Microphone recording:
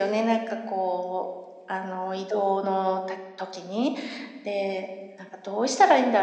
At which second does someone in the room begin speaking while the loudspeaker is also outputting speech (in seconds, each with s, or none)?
none